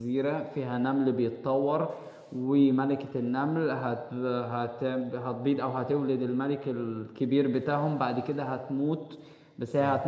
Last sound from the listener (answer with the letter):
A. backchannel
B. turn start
A